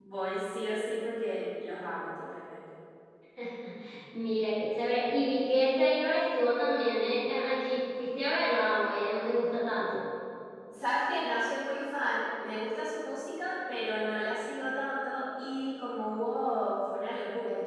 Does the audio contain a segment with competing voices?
No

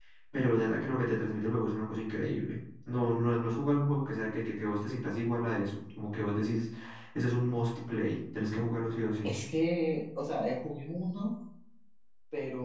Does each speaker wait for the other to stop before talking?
Yes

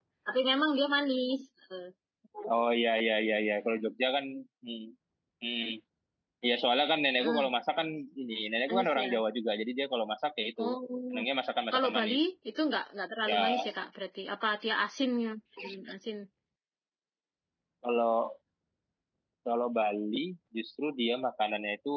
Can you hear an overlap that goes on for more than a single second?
No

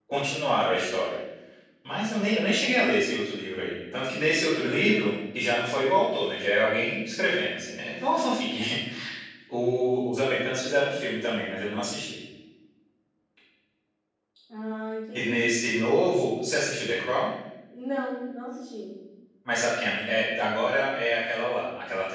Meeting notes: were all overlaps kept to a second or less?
Yes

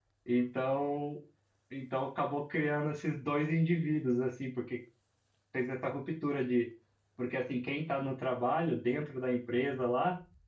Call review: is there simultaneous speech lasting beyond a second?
No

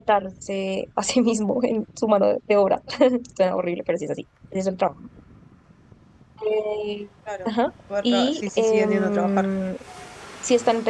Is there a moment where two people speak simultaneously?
Yes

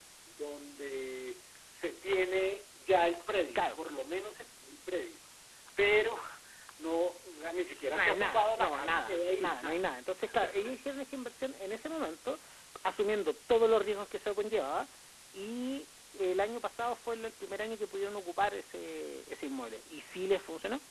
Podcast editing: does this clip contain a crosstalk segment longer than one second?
Yes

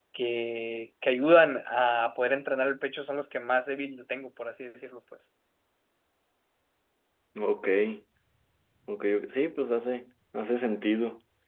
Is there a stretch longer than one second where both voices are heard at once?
No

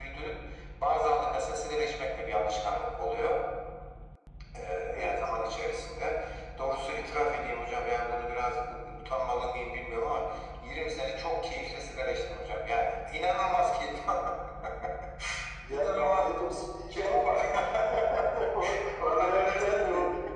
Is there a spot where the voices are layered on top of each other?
Yes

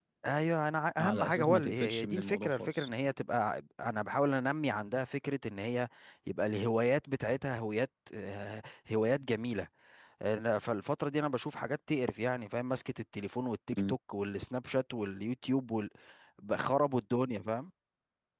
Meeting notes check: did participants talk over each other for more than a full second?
Yes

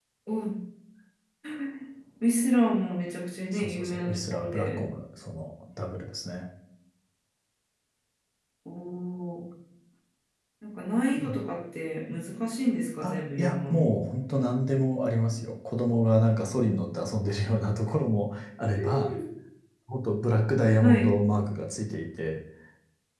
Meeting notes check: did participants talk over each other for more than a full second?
Yes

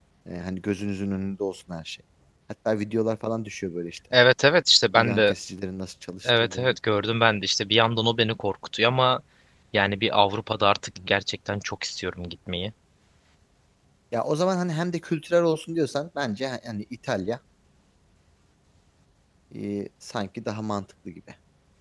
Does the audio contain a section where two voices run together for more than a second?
No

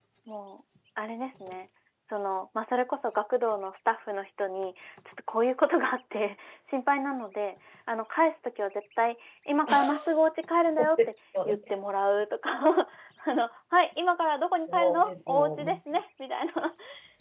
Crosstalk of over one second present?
Yes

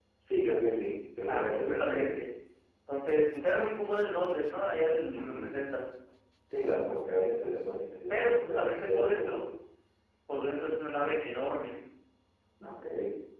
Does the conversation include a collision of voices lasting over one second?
Yes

